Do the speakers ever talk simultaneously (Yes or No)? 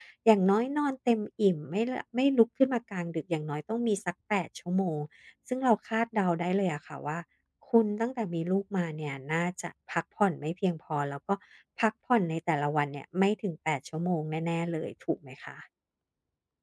No